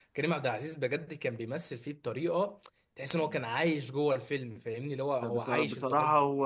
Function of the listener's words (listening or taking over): taking over